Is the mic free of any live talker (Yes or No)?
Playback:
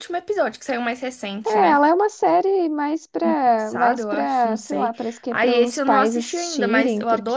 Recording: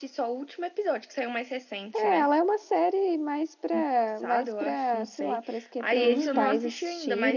No